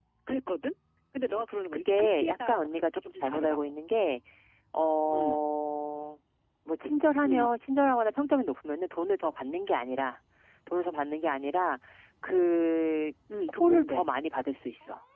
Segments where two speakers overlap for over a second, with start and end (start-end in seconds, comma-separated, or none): 1.3-3.6